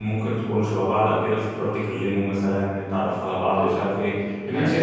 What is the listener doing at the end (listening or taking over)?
listening